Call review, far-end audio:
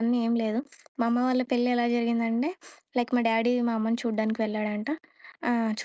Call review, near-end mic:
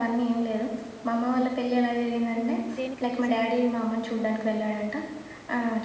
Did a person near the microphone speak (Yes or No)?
Yes